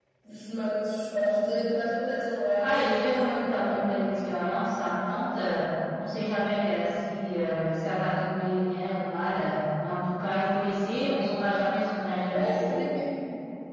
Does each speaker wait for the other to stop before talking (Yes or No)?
No